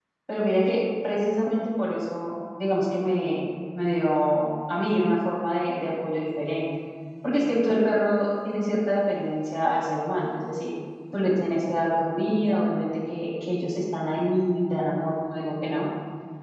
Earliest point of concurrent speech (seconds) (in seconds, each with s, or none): none